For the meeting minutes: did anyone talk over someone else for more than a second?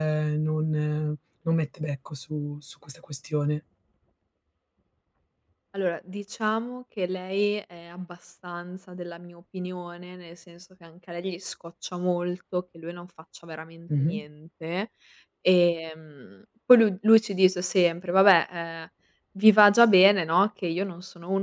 No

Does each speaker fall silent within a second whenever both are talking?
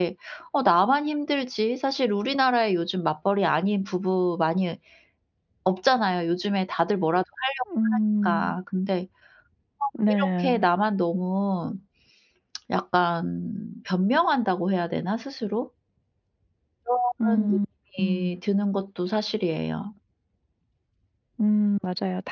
Yes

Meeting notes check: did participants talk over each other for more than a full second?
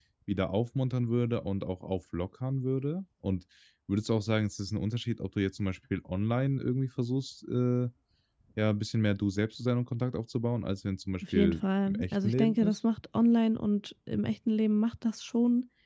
Yes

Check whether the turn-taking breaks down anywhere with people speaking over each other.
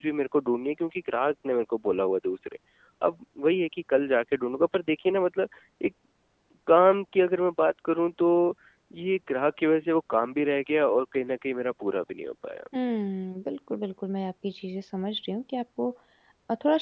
No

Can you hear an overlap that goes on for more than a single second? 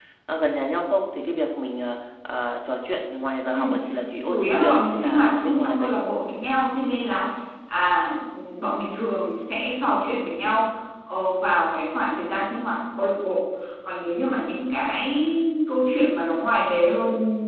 Yes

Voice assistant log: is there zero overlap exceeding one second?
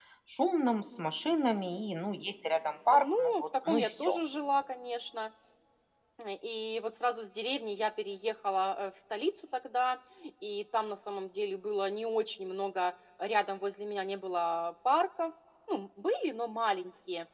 No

